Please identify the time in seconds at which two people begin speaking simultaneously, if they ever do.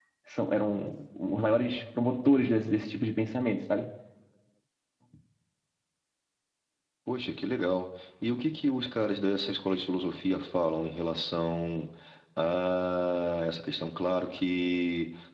none

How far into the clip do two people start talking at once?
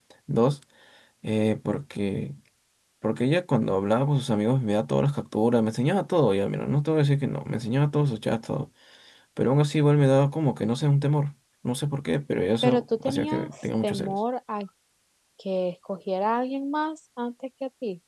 13 s

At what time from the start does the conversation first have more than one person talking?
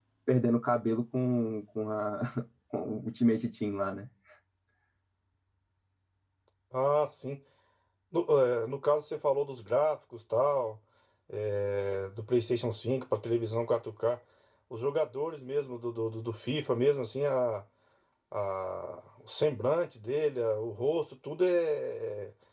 none

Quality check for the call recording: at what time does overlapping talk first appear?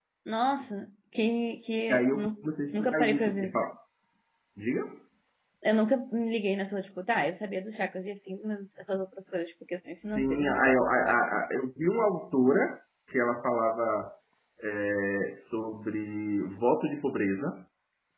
2 s

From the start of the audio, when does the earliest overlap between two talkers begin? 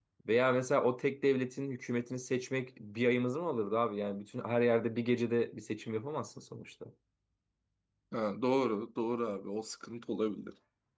none

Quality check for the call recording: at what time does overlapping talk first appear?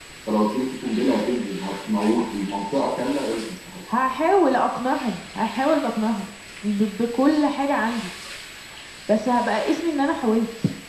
none

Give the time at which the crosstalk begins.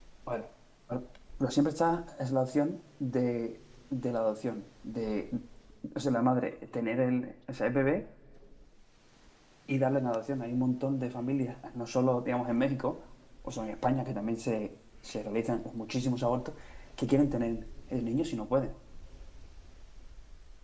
none

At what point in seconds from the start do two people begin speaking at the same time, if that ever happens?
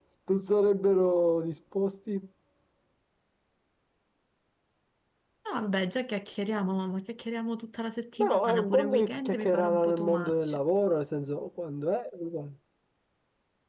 8 s

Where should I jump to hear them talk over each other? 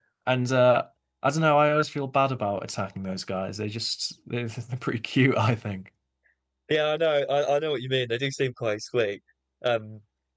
none

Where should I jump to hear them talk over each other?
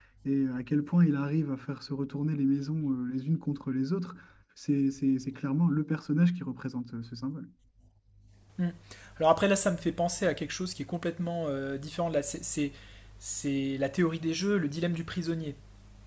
none

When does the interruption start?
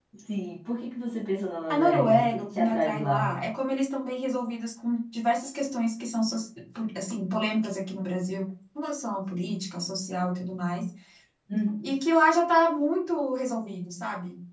2 s

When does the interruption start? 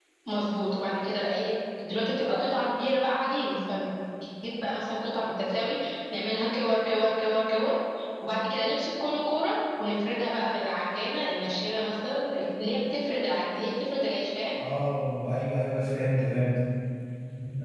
none

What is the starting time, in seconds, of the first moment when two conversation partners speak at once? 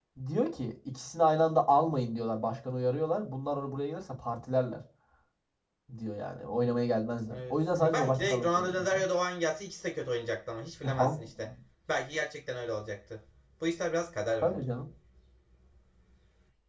7 s

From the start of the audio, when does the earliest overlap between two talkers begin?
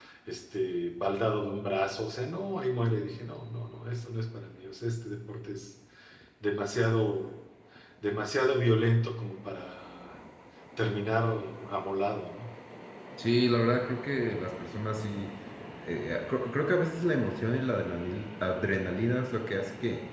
none

